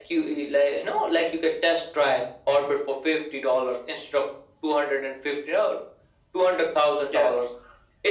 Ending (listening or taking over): listening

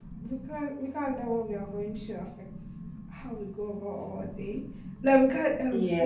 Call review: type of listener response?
listening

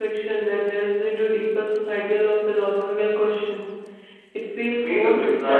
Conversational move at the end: taking over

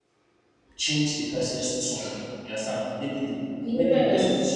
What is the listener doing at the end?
listening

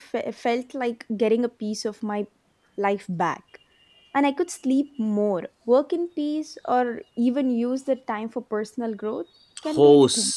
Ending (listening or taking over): taking over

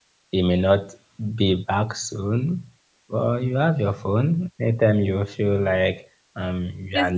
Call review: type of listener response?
listening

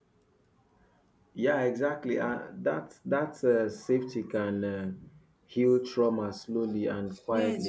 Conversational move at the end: taking over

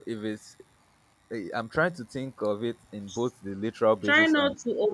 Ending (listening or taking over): taking over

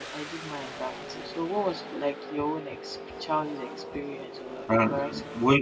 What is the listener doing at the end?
taking over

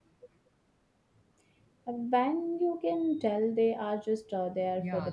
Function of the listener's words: taking over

